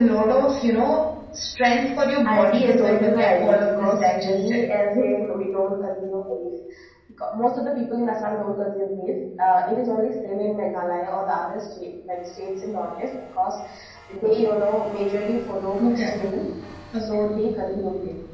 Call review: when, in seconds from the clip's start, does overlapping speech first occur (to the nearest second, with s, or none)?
2 s